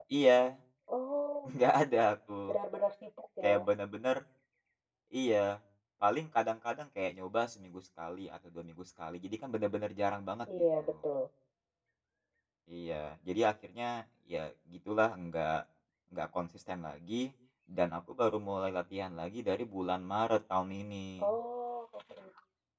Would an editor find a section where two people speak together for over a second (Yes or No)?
No